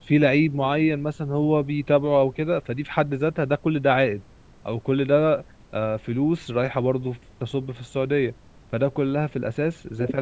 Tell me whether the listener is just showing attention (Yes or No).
Yes